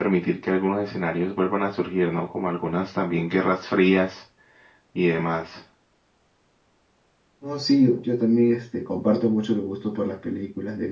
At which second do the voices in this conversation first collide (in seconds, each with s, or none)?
none